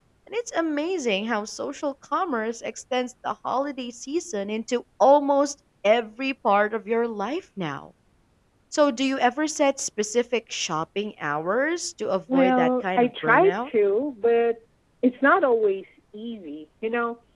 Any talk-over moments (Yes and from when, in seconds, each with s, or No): Yes, from 12.3 s